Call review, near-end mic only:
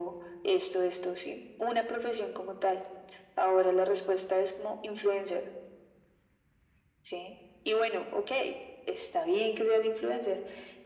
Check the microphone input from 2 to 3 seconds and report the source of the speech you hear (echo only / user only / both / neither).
echo only